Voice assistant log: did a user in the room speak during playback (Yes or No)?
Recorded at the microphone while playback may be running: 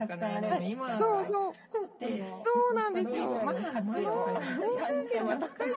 Yes